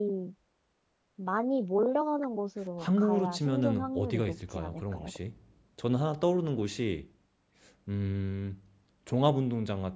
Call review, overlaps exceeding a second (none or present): present